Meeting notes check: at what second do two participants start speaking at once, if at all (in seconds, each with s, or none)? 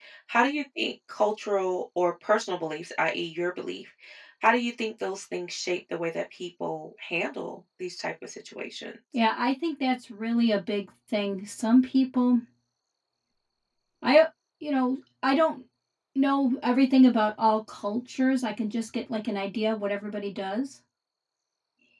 none